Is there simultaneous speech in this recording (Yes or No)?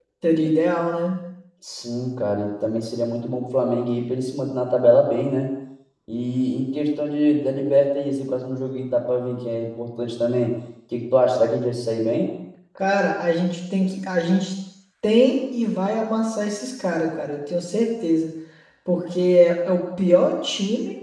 No